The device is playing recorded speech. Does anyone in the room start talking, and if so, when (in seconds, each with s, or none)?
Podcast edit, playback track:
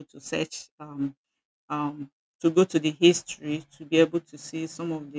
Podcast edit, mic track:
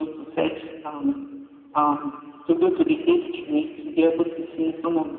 none